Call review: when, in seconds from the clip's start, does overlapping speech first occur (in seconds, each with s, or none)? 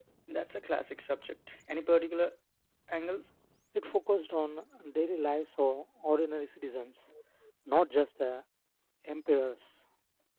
none